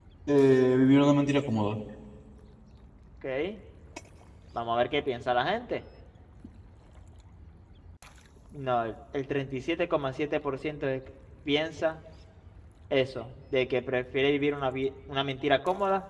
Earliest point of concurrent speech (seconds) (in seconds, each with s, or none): none